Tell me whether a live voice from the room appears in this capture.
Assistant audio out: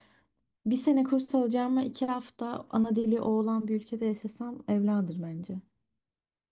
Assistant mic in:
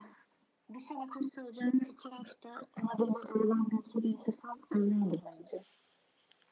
No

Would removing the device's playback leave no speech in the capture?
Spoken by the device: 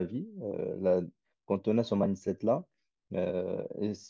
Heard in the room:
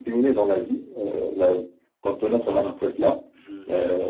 No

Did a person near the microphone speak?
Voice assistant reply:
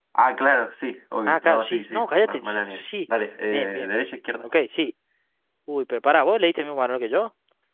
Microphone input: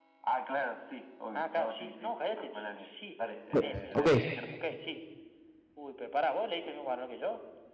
Yes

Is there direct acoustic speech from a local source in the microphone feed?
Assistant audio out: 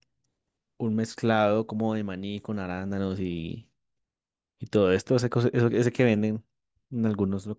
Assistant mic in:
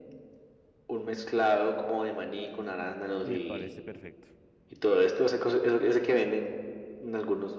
Yes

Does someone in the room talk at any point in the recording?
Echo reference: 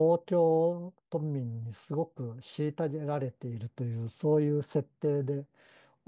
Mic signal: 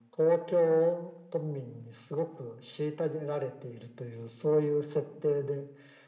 No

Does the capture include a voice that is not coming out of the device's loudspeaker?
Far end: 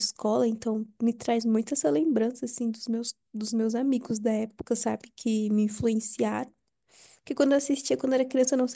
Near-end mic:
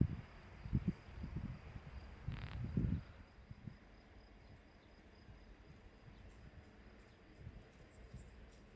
No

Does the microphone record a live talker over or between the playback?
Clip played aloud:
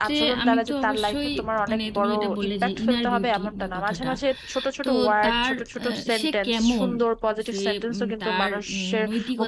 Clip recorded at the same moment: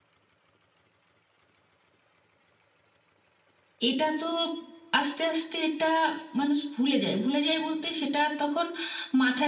Yes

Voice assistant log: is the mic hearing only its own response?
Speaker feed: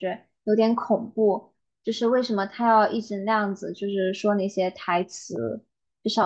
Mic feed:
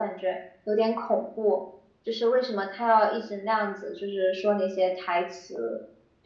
Yes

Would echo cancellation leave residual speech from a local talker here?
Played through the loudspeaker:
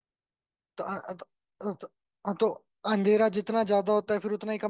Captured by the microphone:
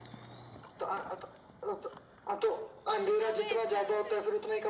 Yes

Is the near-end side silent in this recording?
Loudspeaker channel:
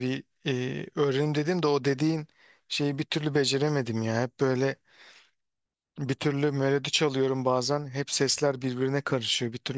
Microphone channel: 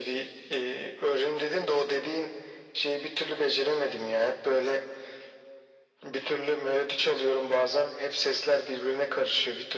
Yes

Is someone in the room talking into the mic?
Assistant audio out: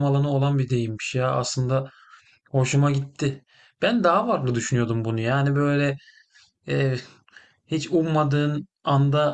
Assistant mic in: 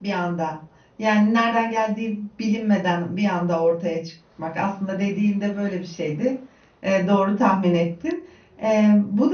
Yes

